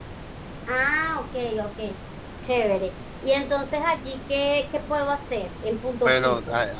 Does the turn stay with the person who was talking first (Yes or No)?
No